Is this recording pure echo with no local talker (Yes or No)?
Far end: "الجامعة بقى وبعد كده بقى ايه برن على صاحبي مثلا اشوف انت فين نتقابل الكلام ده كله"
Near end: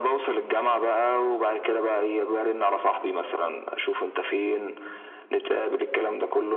Yes